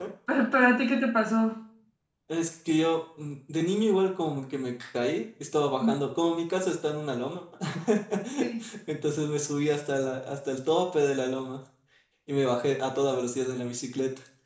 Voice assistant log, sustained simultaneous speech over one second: none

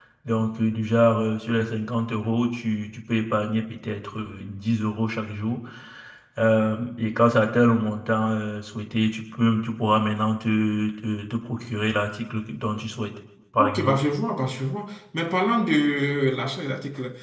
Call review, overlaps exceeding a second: none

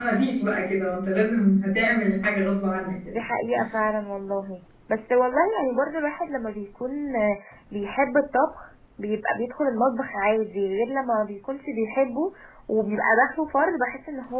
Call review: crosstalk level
none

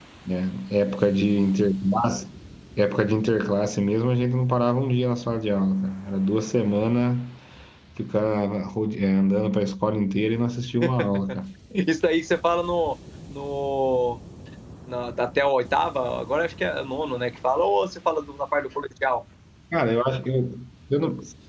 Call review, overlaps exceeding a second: none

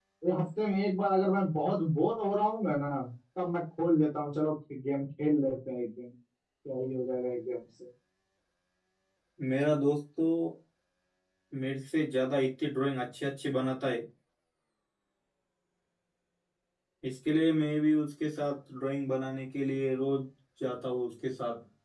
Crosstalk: none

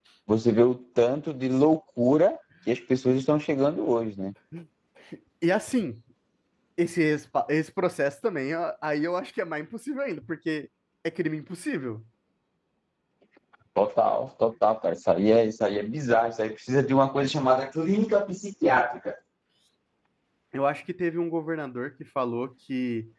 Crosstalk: none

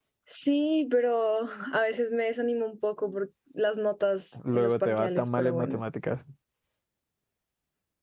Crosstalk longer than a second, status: present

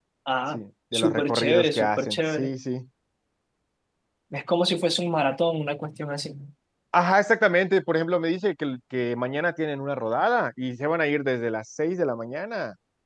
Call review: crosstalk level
present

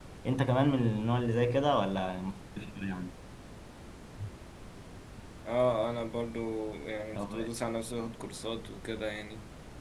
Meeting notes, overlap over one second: none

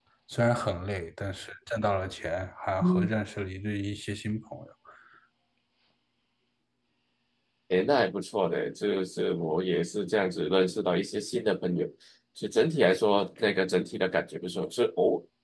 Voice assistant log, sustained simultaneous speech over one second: none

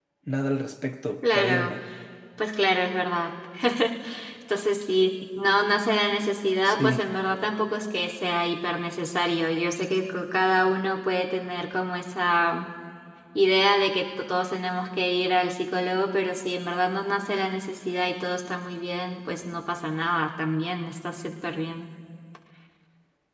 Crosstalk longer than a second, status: none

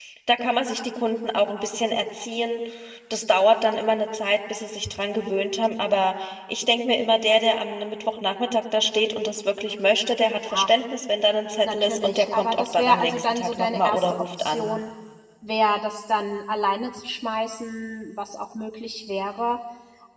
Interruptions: present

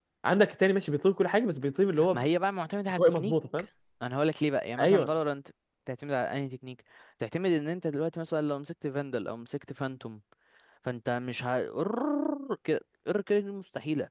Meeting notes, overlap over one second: none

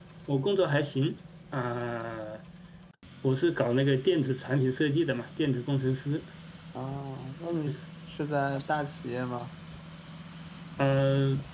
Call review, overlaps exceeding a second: none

